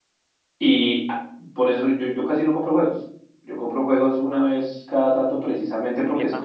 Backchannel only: Yes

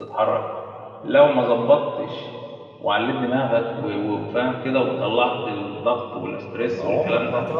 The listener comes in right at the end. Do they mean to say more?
Yes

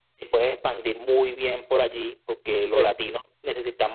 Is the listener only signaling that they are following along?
Yes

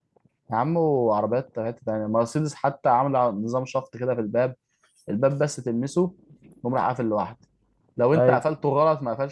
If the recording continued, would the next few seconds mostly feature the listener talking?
No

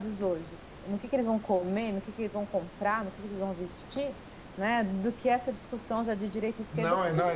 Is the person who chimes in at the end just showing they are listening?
No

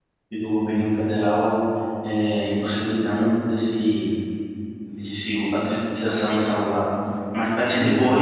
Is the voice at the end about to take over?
No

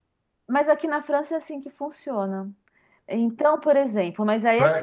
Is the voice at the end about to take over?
Yes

